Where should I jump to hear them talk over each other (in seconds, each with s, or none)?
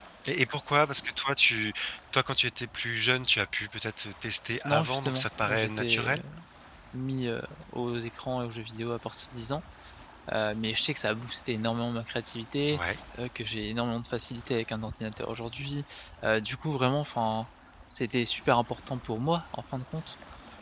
4.6 s